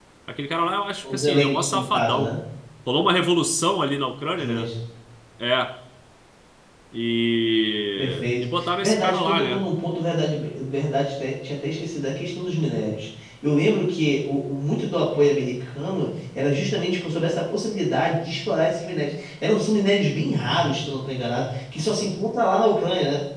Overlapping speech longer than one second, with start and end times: 1.0-2.3, 8.0-9.7

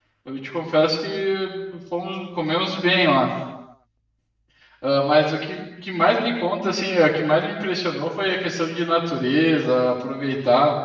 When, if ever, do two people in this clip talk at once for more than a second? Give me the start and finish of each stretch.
none

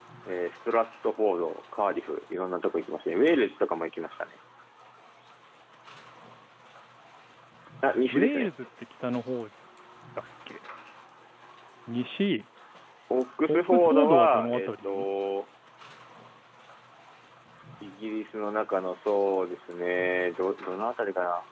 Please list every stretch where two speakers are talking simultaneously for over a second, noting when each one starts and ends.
13.5-15.1

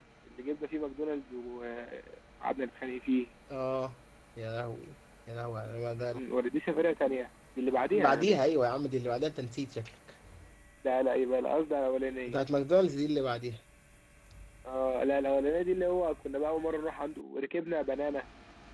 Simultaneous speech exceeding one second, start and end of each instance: none

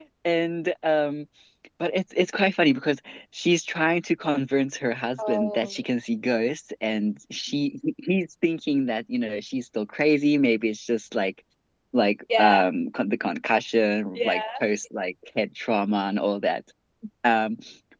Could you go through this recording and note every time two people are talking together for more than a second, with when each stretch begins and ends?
none

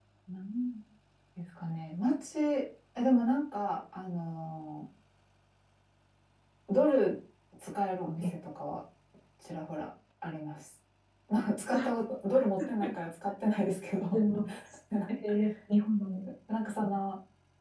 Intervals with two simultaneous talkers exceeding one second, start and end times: none

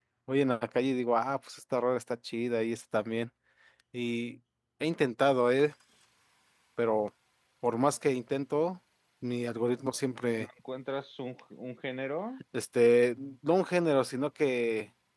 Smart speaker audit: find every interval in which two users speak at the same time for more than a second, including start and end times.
none

